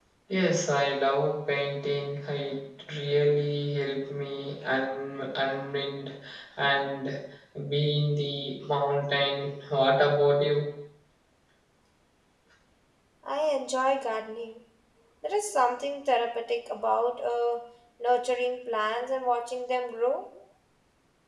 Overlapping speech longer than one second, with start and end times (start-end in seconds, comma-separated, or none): none